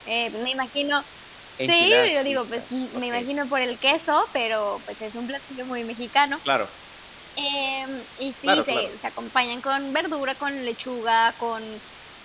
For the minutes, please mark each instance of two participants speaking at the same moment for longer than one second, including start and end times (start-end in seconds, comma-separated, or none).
1.7-3.3